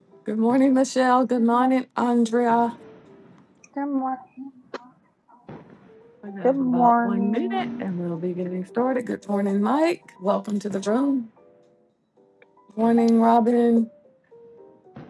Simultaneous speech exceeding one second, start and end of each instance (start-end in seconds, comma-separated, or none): 6.4-7.8